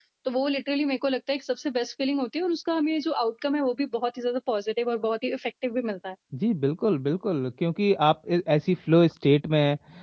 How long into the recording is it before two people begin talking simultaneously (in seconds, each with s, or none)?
none